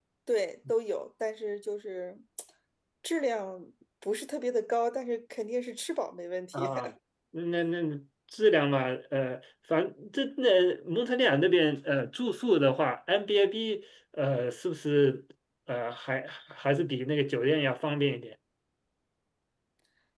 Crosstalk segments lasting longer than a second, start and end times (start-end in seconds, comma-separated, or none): none